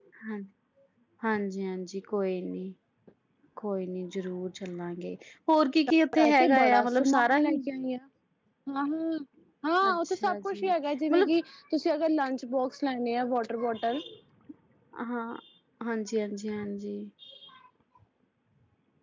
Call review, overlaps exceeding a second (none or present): present